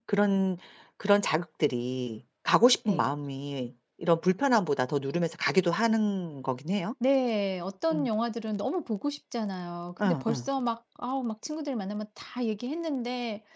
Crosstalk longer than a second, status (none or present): none